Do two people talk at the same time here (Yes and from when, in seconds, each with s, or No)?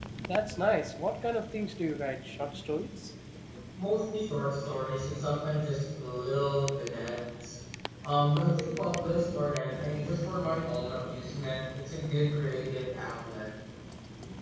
No